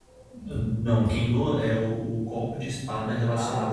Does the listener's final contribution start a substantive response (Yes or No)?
No